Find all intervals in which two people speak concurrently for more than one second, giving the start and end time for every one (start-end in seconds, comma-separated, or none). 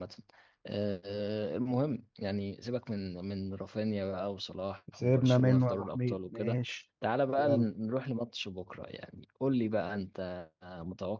5.0-6.6